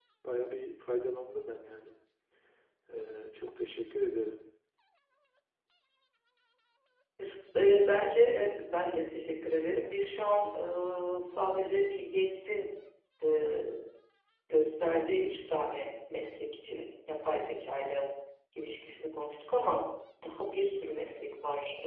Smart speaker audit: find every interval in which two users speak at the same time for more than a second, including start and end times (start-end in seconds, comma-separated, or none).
none